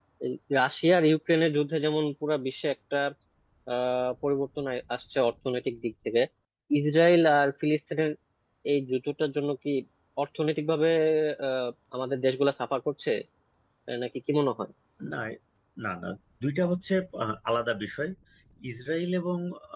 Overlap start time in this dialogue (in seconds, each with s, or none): none